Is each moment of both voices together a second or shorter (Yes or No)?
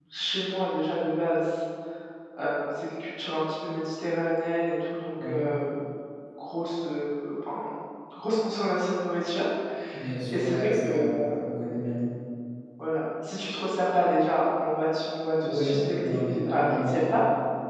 No